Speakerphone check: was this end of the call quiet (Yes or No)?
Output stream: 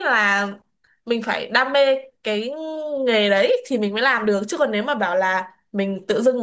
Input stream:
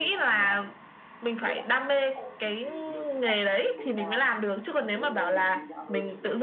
No